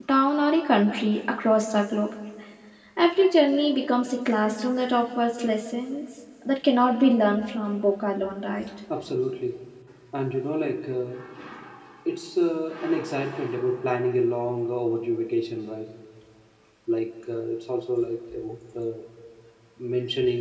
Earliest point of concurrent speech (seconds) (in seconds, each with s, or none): none